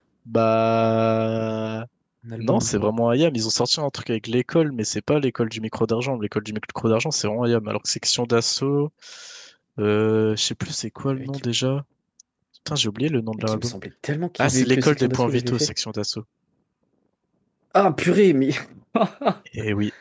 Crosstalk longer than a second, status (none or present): present